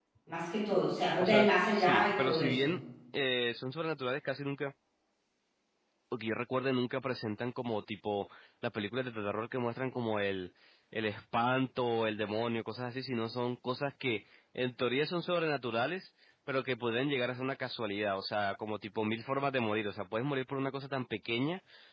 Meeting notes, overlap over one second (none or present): present